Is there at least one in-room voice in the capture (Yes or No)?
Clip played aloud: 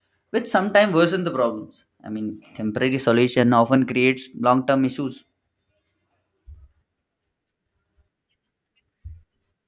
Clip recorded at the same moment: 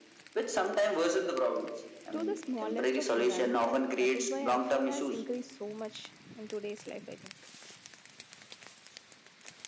Yes